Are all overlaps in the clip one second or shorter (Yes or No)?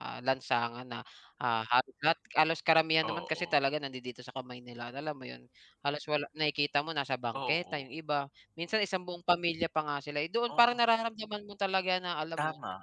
Yes